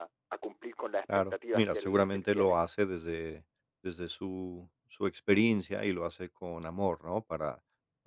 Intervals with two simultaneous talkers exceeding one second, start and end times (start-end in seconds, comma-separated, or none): 1.3-2.6